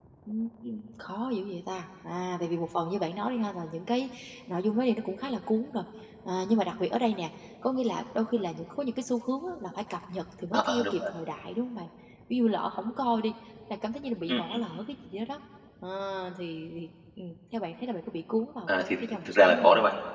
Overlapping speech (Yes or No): Yes